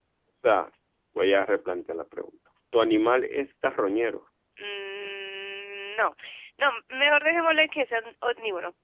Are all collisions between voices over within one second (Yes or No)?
Yes